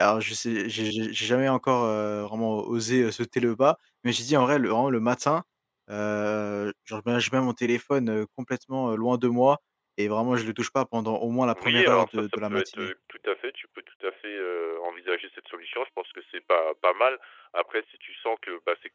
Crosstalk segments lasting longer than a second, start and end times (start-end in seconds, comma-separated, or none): 11.5-12.9